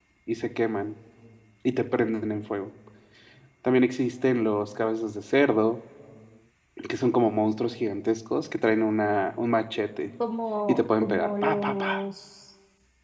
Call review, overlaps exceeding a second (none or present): present